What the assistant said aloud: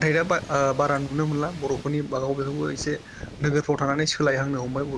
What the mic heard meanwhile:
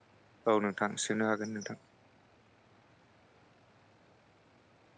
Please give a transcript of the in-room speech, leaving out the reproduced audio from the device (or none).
औ नोंथां सोंनो हागोन नोंथां।